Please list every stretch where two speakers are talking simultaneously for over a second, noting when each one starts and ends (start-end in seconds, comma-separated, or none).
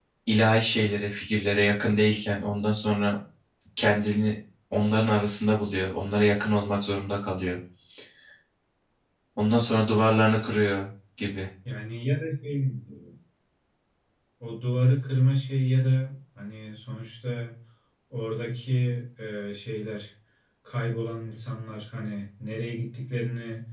none